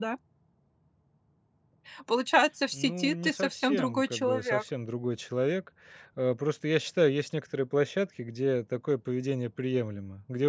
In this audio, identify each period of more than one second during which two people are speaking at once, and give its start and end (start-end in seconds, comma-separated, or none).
2.7-4.6